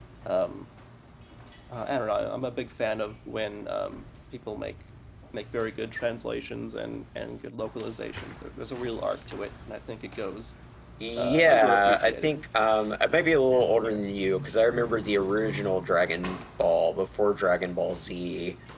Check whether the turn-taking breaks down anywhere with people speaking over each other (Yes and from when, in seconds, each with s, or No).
Yes, from 11.2 s